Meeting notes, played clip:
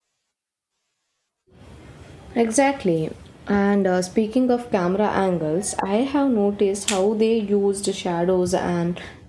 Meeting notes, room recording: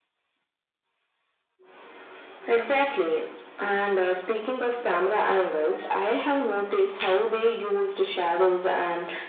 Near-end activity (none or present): none